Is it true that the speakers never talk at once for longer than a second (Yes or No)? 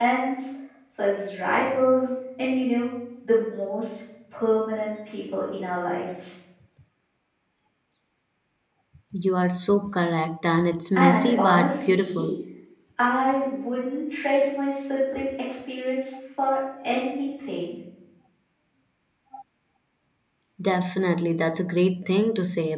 No